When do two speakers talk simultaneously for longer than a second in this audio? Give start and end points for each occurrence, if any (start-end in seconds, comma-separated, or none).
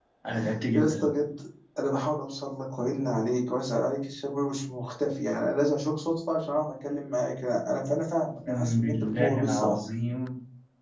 8.5-9.8